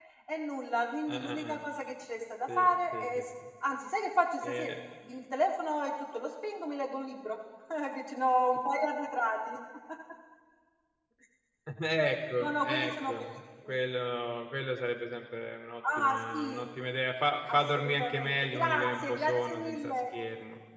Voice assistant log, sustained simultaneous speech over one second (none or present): present